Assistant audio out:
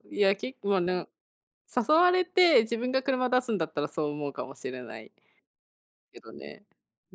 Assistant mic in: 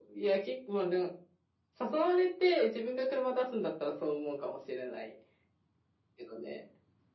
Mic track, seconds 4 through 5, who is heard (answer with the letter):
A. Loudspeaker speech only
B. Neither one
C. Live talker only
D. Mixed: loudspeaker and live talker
A